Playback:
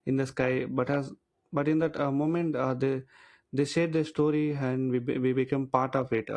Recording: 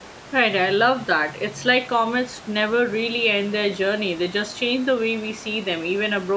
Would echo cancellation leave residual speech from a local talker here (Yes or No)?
Yes